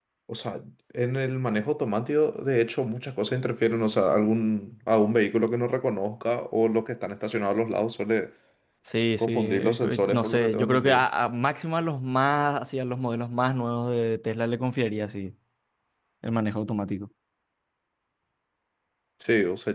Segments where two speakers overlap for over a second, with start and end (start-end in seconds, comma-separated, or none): 9.2-11.1